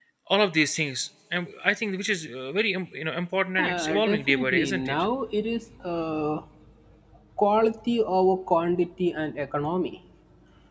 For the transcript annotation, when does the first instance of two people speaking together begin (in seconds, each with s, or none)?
3.6 s